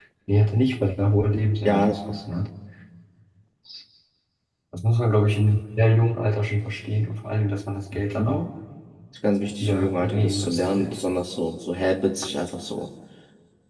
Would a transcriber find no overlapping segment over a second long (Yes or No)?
No